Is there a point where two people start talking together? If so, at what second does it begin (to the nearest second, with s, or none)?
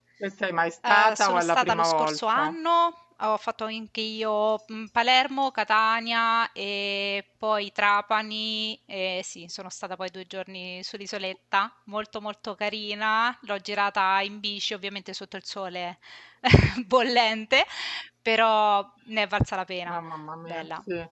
1 s